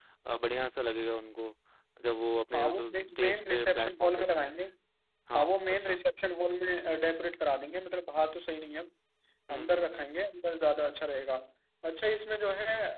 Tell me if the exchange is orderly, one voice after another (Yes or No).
No